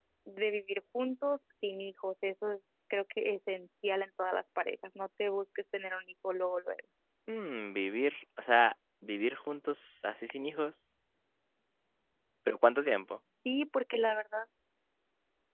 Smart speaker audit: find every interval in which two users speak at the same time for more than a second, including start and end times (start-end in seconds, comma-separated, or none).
none